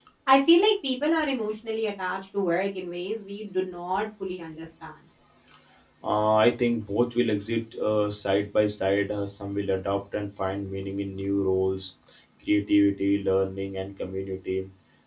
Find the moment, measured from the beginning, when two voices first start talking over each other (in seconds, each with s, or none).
none